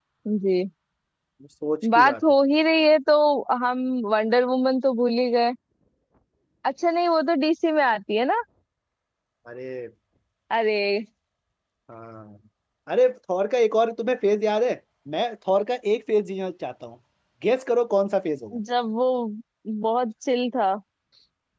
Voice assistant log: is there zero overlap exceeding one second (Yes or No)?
Yes